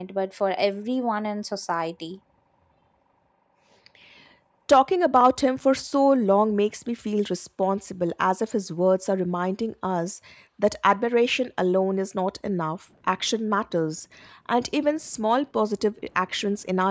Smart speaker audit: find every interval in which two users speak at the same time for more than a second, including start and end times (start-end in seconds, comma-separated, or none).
none